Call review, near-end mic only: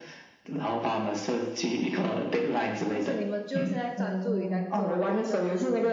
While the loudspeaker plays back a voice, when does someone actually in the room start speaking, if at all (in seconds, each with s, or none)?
2.9 s